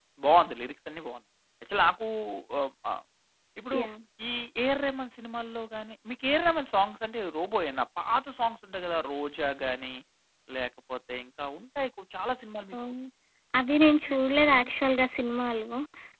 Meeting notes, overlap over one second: none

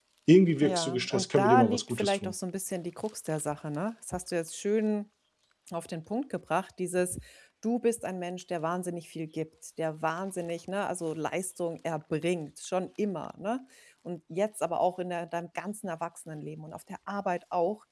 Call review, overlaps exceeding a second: present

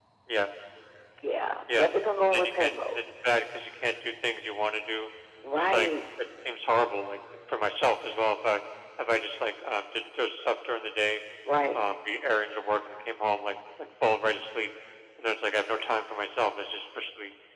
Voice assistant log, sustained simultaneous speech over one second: present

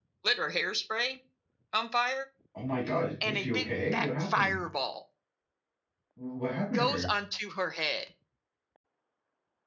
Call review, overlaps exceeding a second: present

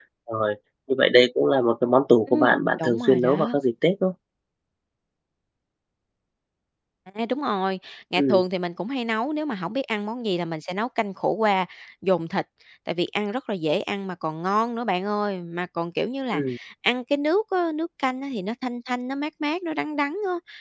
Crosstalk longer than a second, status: present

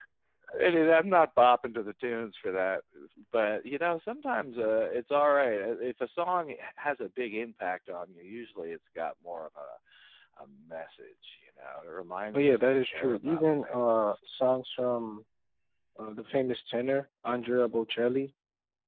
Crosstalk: present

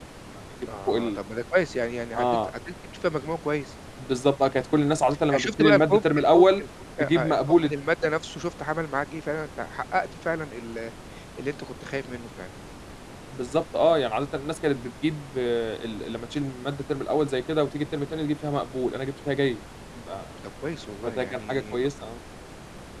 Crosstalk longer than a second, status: present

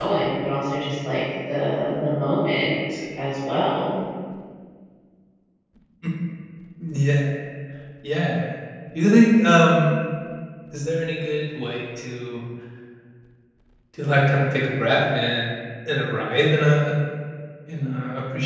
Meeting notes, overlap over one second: none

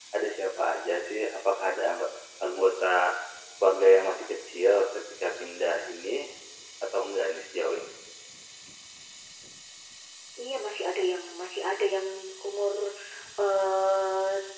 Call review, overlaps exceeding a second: none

